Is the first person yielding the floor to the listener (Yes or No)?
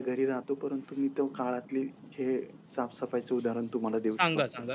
Yes